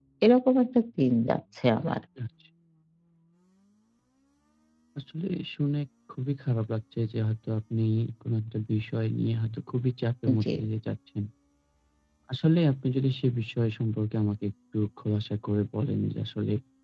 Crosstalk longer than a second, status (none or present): none